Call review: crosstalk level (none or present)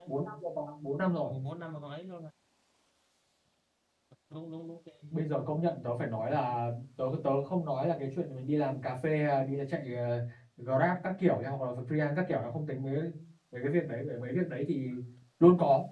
none